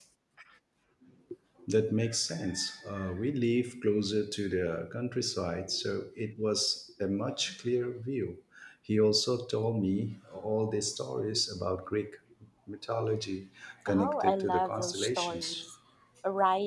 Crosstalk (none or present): present